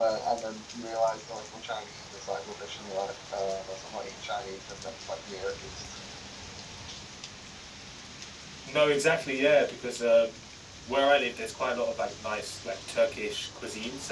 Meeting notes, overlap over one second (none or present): none